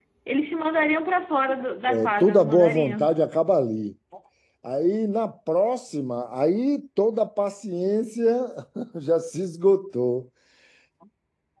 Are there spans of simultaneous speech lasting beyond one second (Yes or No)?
Yes